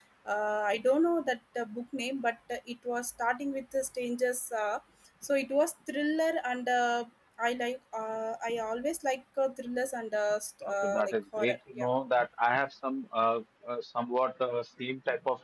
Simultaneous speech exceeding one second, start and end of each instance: 10.7-11.9

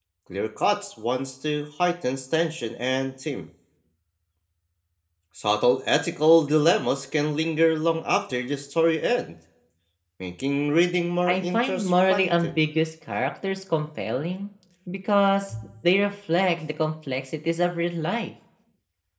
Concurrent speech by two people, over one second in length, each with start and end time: 11.3-12.5

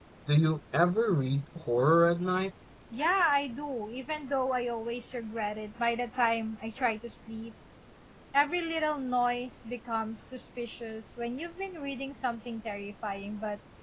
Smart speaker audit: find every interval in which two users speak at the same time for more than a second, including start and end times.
none

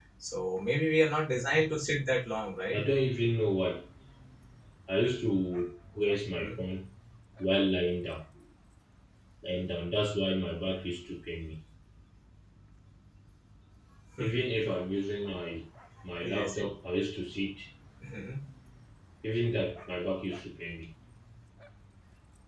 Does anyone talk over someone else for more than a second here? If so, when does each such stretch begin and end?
none

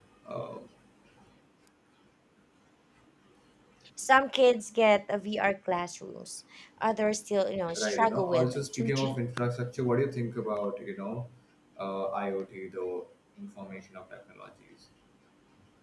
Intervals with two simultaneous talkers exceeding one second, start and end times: 7.8-9.2

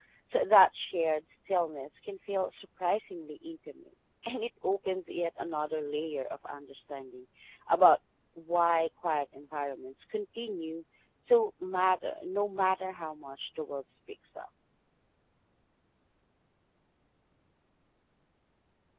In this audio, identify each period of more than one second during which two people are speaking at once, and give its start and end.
none

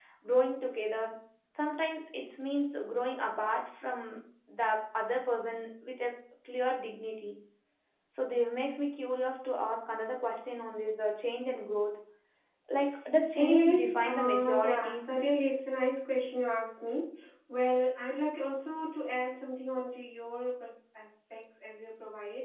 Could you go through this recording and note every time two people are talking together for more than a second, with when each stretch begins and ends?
13.3-15.2

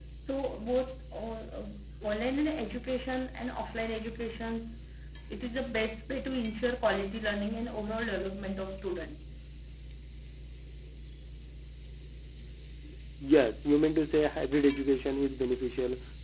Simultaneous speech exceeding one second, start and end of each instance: none

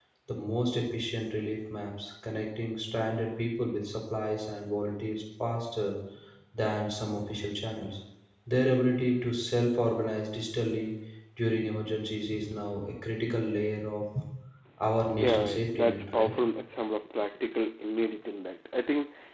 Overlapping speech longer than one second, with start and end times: 15.2-16.4

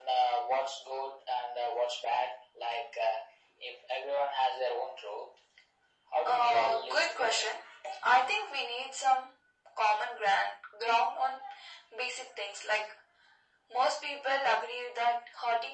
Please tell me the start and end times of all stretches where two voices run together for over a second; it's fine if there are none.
6.2-7.5

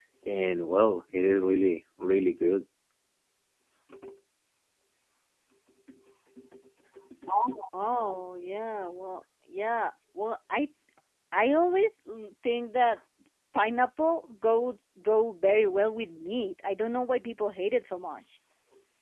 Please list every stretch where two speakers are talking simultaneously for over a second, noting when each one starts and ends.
none

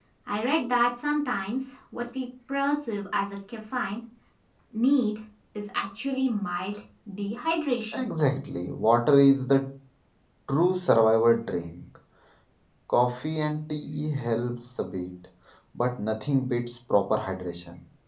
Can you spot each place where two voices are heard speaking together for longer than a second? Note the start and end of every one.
none

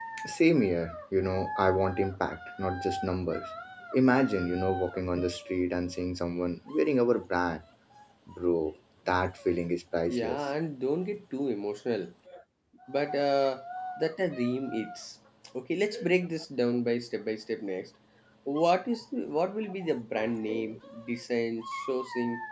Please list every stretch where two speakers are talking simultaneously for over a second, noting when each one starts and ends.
none

